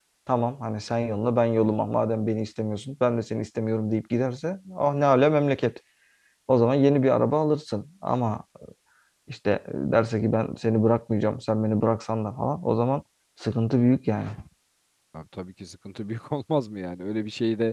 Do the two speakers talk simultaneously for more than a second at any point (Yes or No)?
No